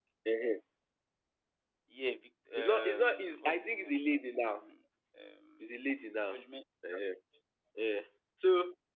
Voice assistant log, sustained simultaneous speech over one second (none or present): present